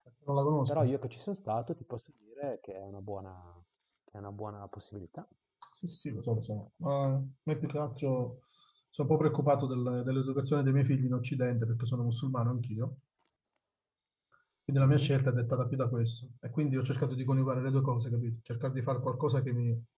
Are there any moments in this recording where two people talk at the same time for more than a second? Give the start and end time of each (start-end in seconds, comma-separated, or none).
none